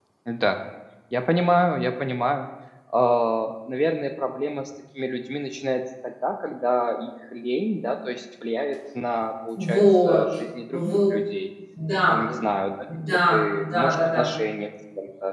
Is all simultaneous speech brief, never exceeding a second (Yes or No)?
No